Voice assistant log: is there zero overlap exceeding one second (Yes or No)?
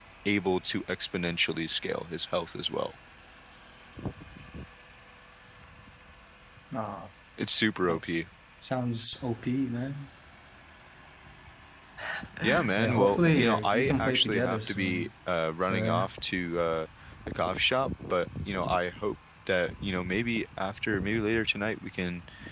No